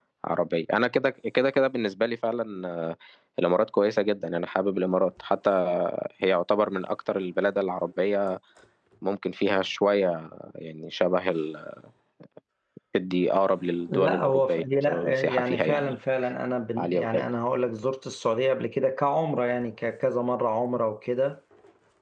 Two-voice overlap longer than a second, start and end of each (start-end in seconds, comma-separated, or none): 13.9-15.9